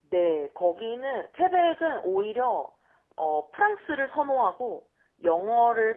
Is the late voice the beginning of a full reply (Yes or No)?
No